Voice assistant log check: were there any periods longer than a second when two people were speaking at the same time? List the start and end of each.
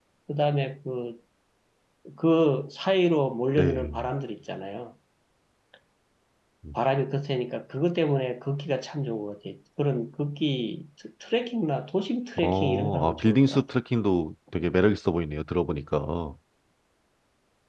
12.4-13.6

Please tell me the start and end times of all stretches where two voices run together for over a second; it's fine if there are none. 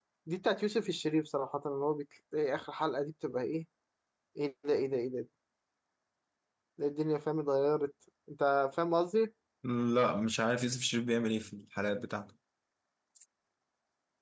none

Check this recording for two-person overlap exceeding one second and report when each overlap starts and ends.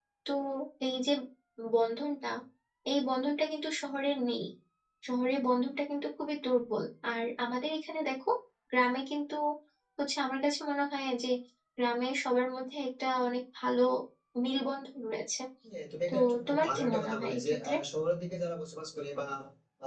16.1-17.7

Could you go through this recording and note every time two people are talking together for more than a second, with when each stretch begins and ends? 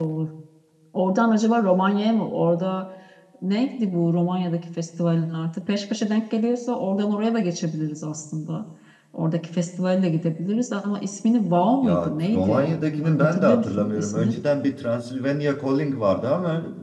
11.8-14.4

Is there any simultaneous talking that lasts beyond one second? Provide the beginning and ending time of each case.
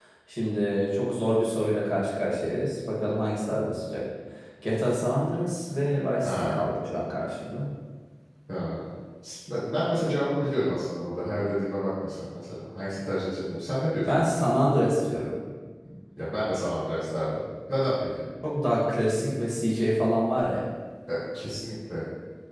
none

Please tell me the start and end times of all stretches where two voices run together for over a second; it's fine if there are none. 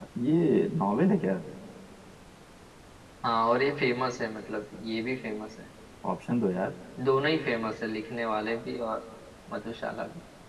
none

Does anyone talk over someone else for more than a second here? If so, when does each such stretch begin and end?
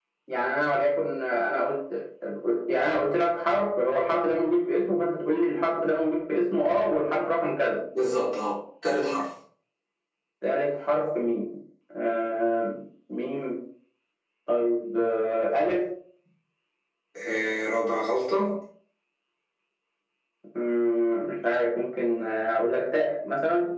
none

